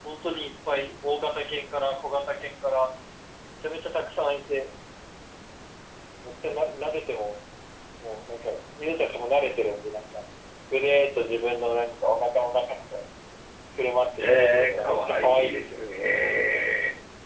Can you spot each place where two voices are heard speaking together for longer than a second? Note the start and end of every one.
14.2-15.6

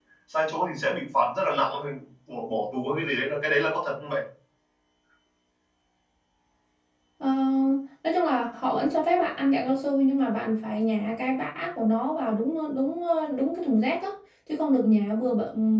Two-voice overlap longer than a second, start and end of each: none

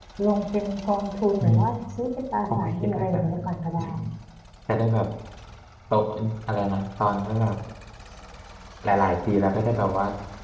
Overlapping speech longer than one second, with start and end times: 2.6-3.8

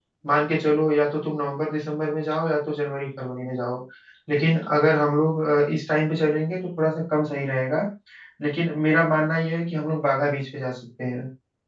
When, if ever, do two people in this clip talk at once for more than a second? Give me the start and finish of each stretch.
none

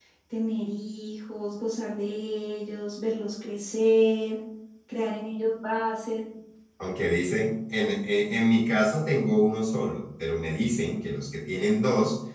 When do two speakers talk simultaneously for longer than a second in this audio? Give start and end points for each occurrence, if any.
none

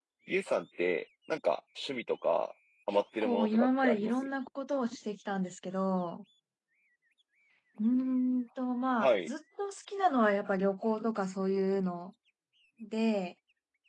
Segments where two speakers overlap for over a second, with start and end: 2.9-4.1

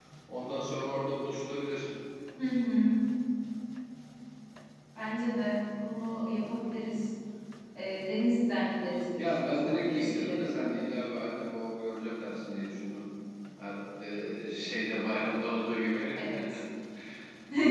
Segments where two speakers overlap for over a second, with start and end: 9.2-10.8

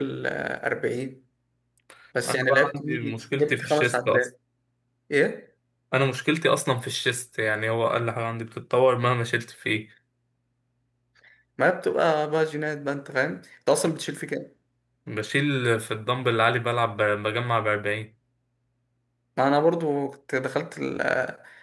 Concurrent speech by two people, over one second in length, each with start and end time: 2.3-4.3

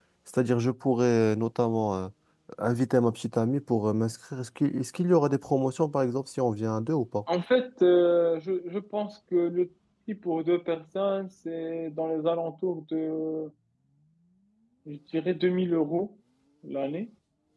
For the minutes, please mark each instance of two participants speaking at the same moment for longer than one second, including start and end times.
none

